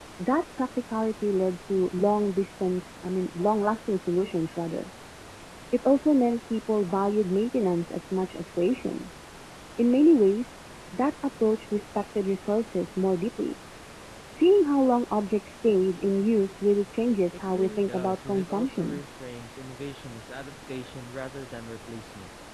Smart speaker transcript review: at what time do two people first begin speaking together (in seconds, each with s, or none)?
17.5 s